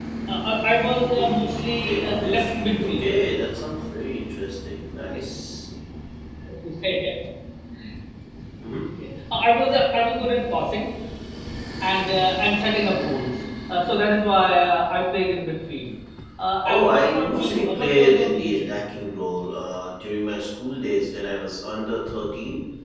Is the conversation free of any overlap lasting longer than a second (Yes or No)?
No